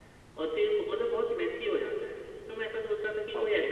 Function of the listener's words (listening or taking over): listening